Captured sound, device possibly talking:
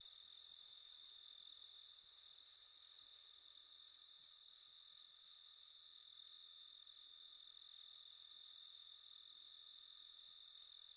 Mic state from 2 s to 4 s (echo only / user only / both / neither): neither